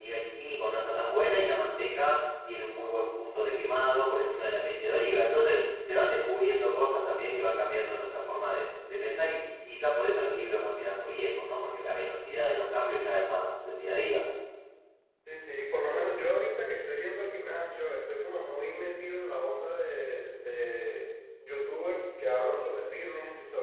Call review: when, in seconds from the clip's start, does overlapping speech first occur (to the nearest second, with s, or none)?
none